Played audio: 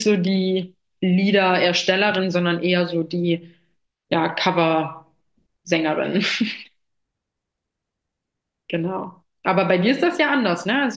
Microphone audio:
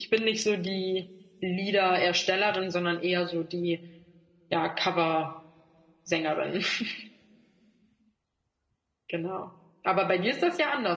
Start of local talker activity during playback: none

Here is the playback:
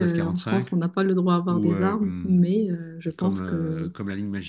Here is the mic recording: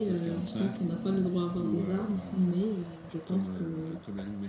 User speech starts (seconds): none

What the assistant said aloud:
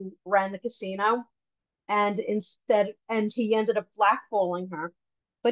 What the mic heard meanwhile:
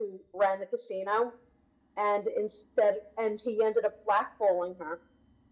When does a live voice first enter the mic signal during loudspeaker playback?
none

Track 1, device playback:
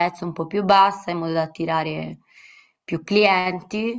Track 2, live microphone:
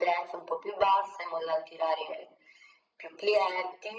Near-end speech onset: none

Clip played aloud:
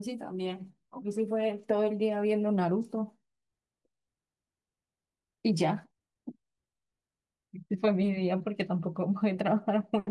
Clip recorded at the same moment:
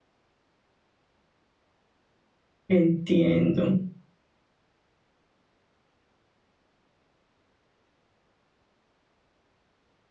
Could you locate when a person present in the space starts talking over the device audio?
2.7 s

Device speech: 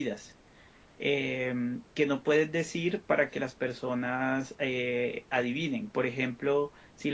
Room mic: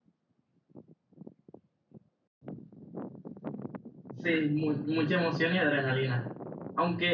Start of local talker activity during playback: 4.1 s

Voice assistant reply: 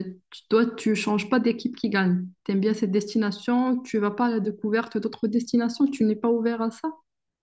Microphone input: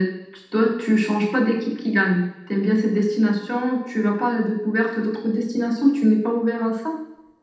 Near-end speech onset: none

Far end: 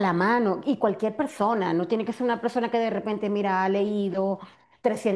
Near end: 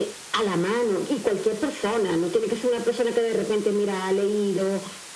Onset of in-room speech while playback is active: none

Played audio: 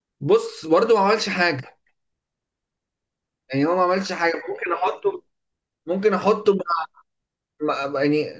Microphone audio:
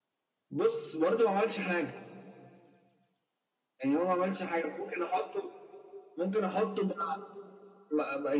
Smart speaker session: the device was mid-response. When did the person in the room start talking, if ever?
none

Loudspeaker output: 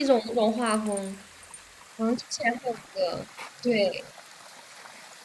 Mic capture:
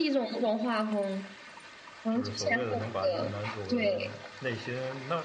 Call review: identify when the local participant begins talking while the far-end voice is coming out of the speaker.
2.1 s

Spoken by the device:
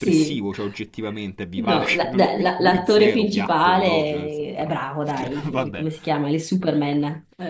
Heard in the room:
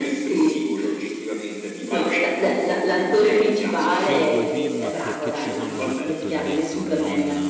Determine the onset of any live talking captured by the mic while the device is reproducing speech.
3.8 s

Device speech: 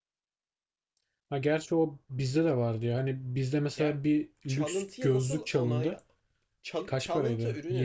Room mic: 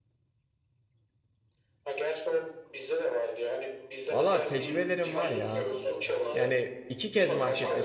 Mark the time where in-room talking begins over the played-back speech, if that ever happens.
4.1 s

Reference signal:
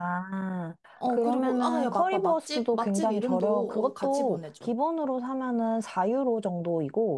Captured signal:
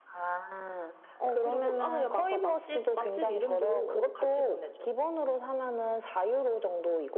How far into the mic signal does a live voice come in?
none

